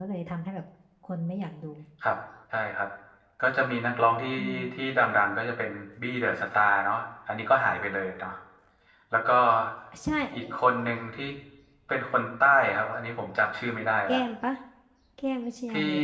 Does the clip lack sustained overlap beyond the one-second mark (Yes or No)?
Yes